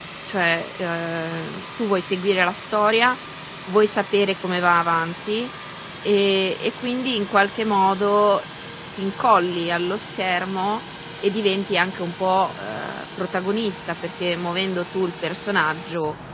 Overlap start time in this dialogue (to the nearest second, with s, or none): none